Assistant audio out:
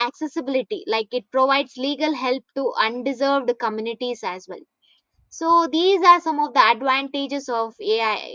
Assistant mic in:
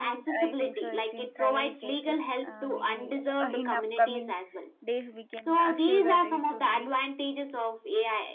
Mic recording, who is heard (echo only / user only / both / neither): both